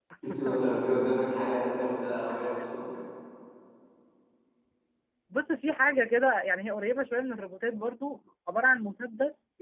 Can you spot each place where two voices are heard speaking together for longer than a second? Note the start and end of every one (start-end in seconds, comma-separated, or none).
none